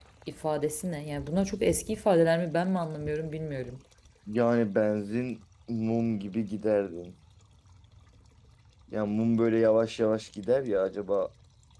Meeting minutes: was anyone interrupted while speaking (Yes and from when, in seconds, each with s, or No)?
No